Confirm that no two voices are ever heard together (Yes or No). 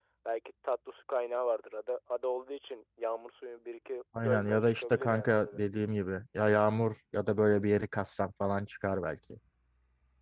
No